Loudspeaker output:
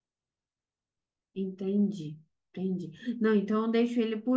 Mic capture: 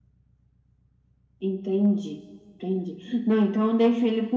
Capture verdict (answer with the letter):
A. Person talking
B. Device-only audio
B